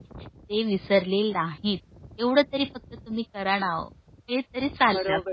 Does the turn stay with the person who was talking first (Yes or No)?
No